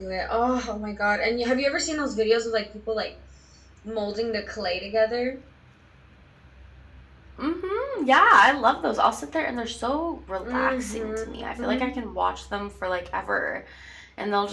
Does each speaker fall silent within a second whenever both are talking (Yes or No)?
No